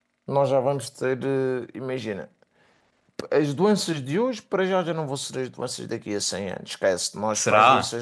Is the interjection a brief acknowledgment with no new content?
Yes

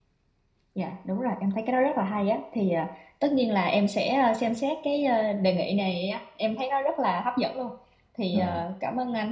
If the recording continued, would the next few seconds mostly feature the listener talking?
No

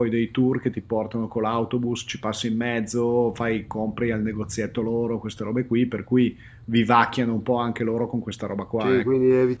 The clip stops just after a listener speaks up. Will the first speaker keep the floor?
No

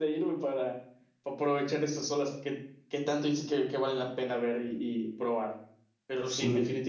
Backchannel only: Yes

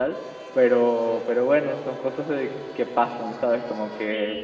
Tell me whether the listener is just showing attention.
Yes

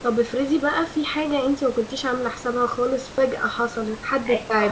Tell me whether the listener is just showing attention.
No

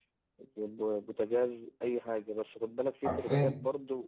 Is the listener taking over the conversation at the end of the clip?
No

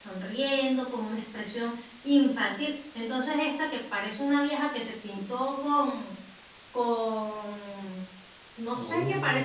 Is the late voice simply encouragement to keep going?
Yes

